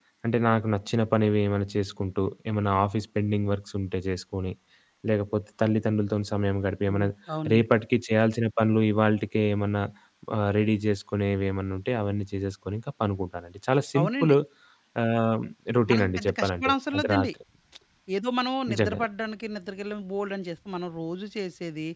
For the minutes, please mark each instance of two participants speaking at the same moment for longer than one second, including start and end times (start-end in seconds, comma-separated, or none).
15.9-17.3